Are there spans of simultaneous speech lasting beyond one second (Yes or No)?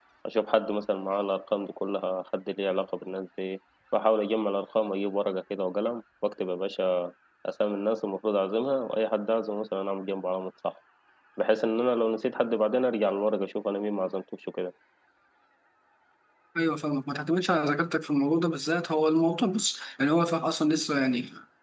No